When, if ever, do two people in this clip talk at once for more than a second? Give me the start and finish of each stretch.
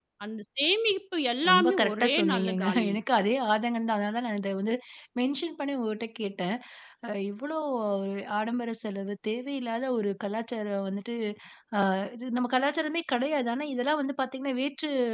1.5-3.0

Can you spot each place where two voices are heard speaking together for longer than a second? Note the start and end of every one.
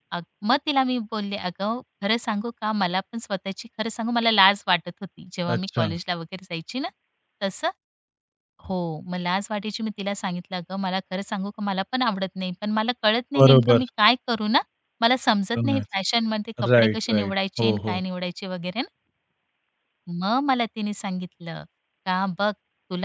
16.8-18.0

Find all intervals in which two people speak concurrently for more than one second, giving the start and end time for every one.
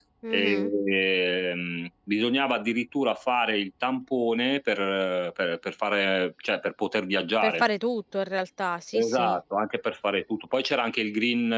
none

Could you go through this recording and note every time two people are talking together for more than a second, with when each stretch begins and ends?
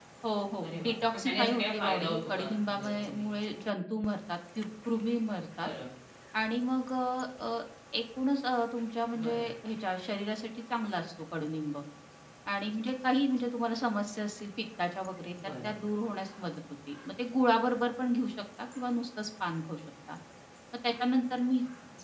0.6-3.3

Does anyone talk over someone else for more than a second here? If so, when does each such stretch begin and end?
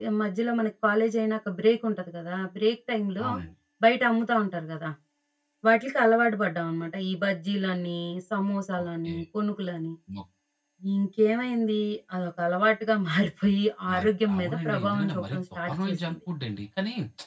13.9-16.1

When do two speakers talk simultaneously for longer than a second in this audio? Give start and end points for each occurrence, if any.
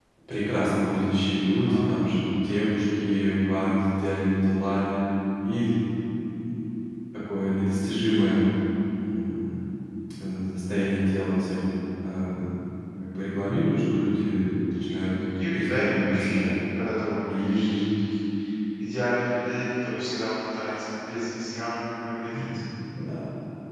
14.8-16.6

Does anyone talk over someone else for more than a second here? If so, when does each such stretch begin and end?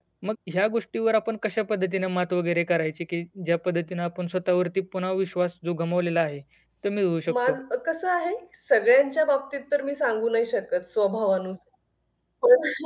none

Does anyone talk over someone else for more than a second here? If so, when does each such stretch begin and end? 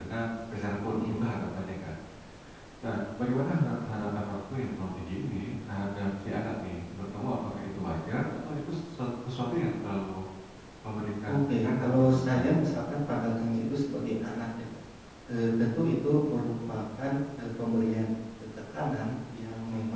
11.3-12.8

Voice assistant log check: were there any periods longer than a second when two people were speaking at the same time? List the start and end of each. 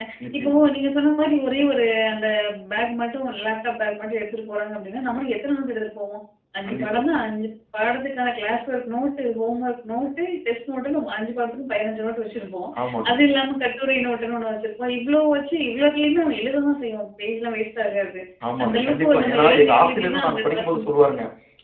18.6-20.9

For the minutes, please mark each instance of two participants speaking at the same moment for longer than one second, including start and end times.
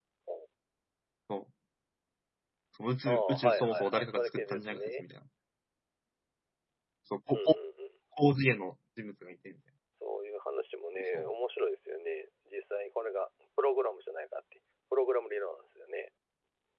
3.1-5.0

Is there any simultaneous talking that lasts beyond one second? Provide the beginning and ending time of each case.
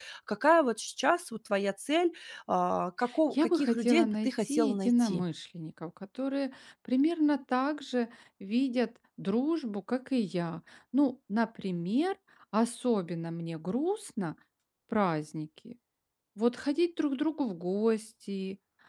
3.3-5.2

